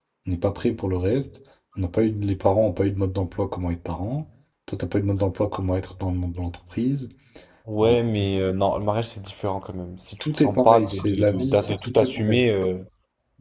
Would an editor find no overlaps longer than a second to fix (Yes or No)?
No